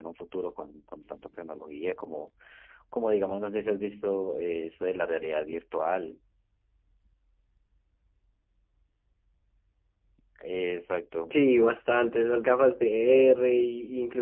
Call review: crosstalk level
none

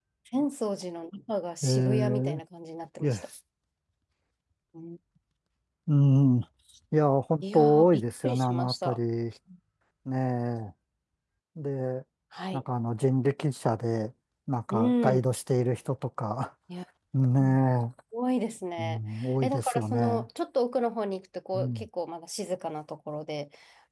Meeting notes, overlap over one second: present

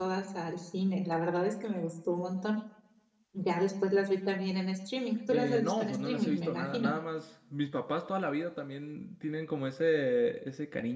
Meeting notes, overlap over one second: present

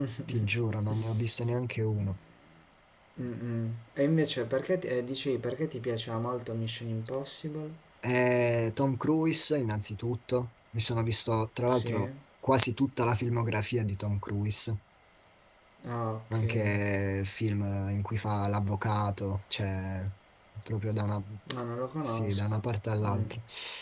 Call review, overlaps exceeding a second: none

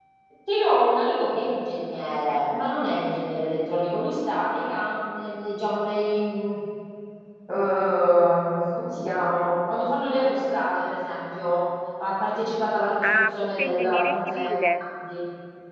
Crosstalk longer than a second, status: present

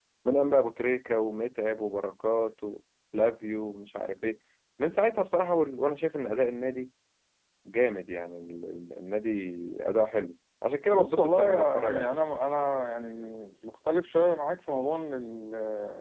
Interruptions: present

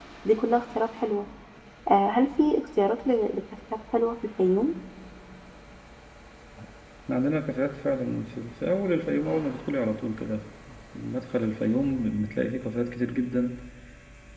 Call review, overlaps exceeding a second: none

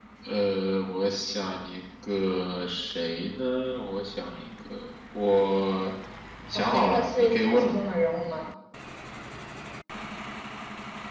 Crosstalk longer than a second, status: present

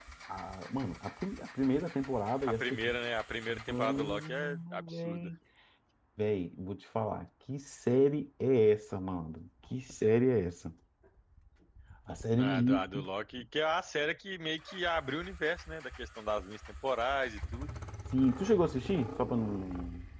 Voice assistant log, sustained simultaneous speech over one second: present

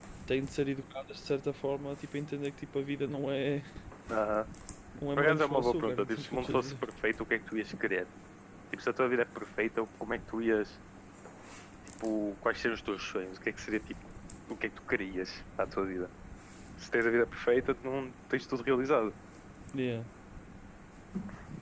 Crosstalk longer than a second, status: present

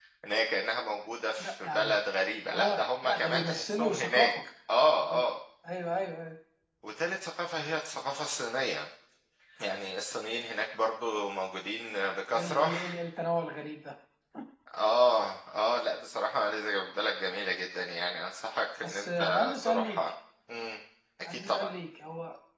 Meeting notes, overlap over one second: present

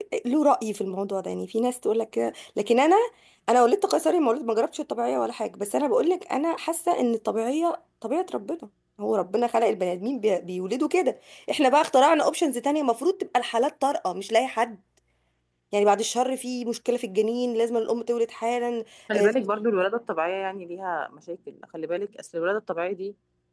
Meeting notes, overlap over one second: none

